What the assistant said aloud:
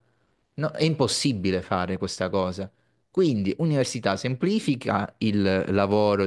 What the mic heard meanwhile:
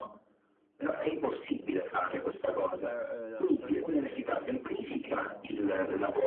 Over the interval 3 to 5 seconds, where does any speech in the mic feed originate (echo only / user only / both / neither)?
both